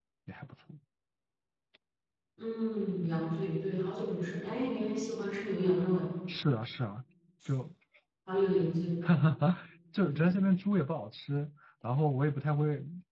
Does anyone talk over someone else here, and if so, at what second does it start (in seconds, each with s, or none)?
none